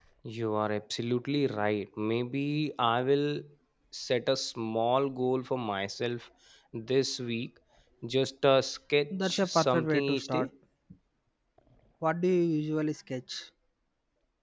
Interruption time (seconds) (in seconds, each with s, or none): 9.1 s